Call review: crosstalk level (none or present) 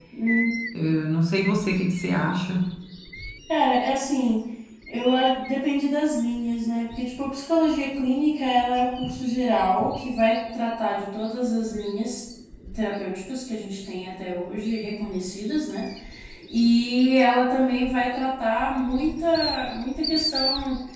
none